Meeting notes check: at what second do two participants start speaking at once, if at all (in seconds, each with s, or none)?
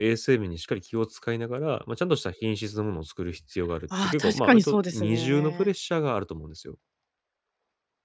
3.9 s